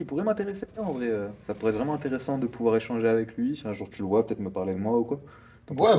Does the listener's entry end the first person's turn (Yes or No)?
Yes